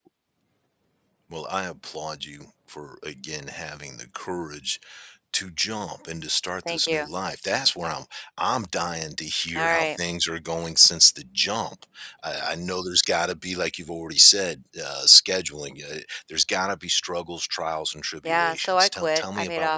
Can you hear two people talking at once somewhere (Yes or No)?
Yes